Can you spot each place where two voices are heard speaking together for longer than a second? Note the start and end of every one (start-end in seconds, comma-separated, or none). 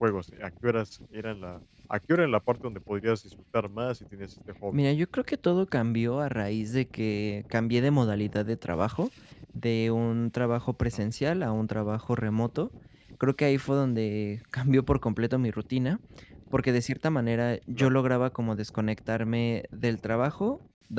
none